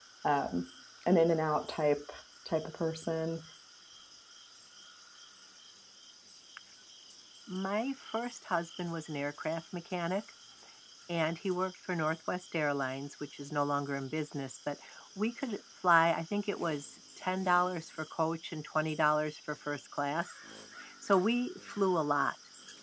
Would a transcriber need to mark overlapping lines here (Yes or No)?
No